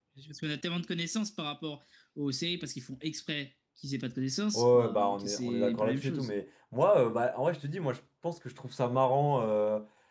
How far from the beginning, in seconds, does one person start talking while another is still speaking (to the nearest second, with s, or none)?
5 s